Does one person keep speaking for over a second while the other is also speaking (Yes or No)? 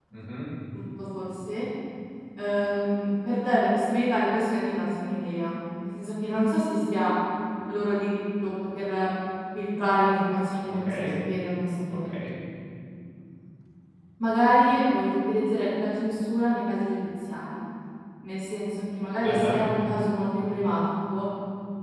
No